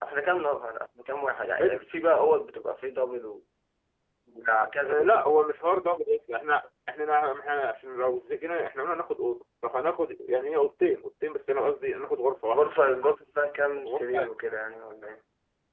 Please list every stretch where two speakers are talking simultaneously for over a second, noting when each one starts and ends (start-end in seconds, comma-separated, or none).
none